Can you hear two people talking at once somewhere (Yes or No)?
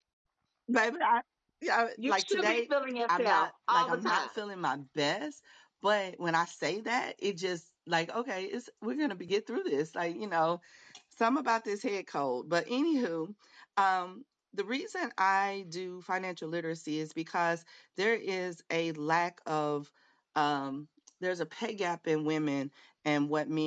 Yes